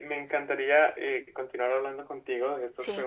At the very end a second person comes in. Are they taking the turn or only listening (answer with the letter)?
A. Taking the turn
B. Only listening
B